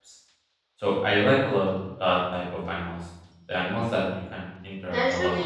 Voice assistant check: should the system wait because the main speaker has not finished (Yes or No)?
No